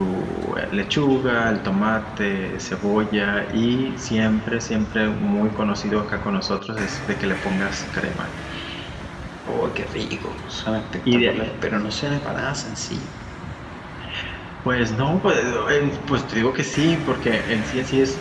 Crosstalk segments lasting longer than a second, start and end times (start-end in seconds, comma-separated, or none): none